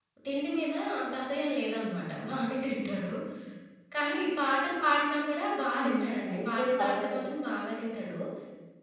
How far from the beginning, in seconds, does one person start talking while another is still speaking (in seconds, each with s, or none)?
5.8 s